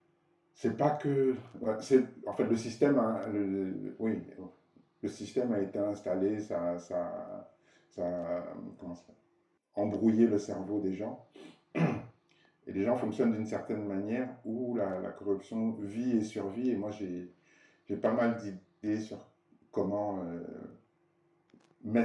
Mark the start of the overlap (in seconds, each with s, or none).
none